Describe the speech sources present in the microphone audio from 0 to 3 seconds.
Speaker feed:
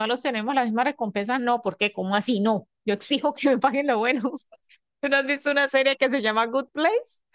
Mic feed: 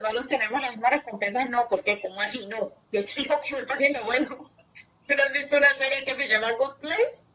echo only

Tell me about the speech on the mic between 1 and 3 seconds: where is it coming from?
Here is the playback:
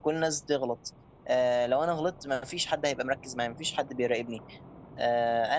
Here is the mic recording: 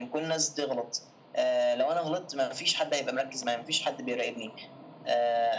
echo only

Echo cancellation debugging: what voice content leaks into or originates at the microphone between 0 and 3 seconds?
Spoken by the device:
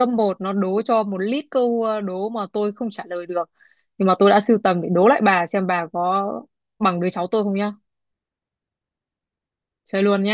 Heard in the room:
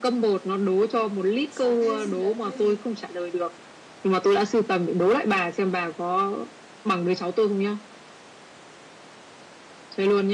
both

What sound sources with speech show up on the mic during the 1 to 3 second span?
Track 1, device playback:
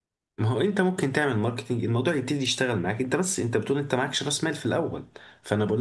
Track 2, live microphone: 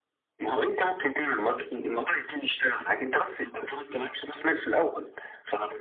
echo only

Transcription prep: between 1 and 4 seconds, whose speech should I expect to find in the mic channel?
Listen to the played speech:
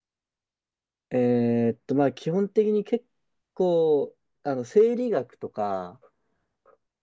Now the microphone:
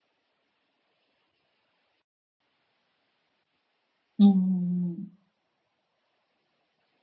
neither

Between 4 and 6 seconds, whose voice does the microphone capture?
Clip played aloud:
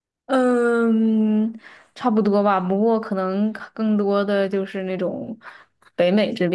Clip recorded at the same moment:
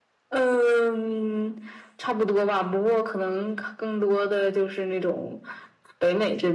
echo only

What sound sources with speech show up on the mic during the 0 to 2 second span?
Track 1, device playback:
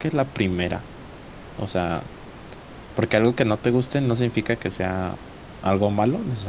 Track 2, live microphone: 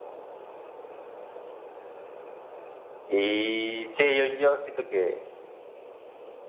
neither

